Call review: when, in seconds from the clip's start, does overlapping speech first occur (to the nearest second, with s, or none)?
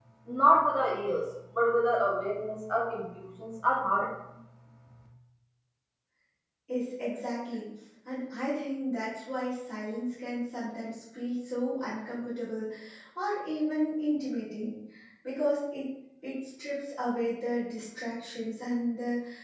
none